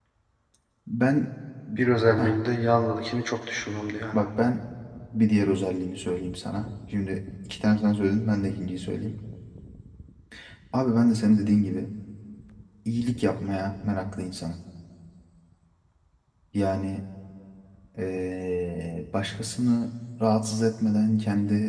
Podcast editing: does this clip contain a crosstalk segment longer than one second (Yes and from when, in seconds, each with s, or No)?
No